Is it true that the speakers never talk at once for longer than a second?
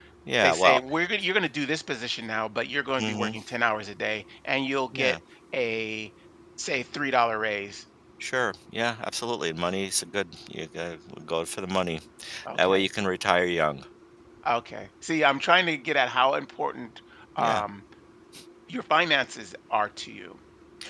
Yes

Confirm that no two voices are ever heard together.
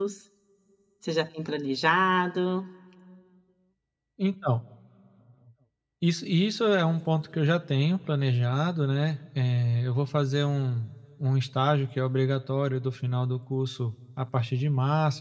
Yes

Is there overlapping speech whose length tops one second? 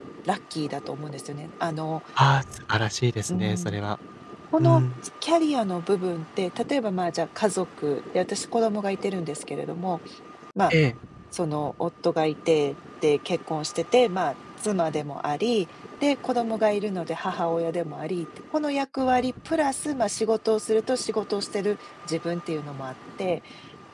No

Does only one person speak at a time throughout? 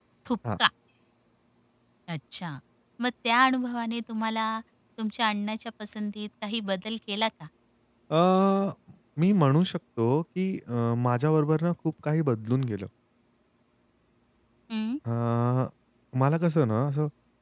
Yes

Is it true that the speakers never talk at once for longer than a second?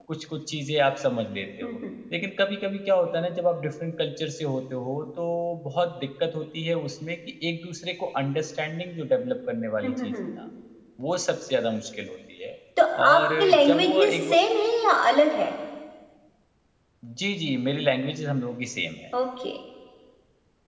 No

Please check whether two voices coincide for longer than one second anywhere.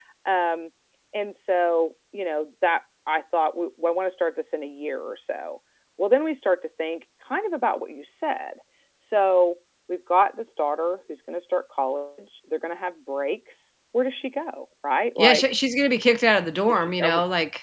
No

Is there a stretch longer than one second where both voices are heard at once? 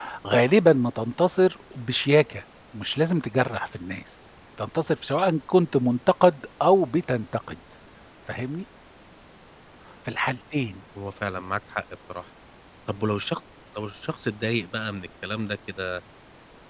No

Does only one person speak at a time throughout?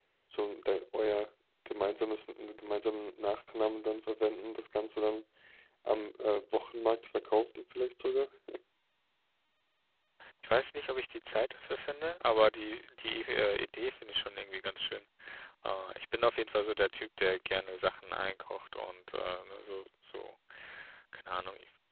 Yes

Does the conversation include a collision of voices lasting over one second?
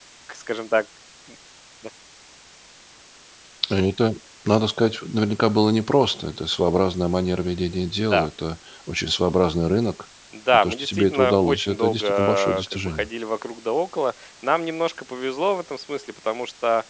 Yes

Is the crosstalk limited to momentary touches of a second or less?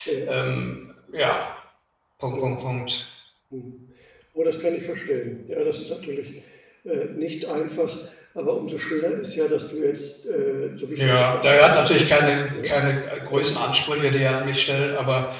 No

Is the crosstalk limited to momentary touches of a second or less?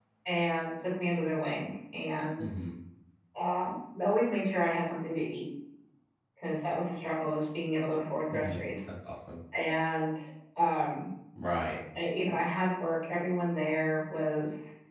Yes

